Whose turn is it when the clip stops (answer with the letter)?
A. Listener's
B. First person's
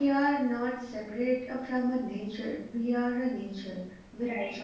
B